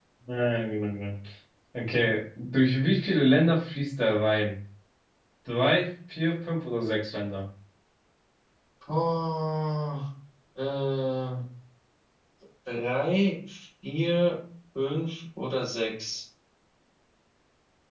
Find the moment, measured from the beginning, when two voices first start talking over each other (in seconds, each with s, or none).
none